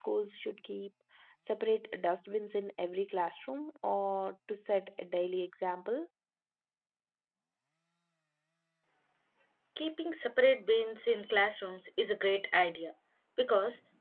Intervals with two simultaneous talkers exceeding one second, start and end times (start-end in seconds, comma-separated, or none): none